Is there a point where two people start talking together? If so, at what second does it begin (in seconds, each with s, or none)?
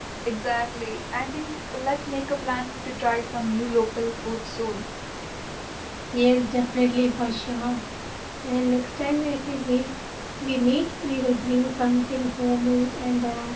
none